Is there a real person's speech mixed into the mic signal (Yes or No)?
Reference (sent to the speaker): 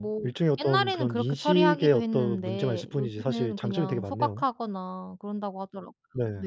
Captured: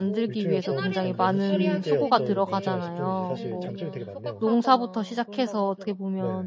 Yes